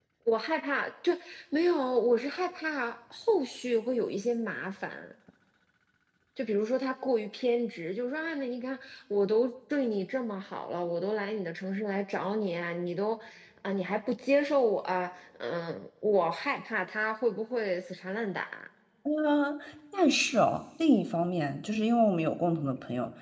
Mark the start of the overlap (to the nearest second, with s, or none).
none